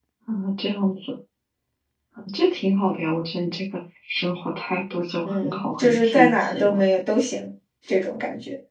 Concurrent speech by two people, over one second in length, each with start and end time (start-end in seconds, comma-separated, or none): 5.2-6.8